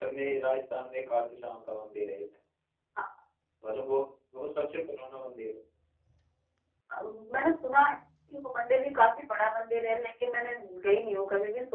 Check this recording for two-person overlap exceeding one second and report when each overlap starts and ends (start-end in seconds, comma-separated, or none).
none